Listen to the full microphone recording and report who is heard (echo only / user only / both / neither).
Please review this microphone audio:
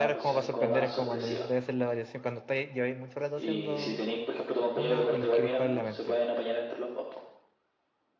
both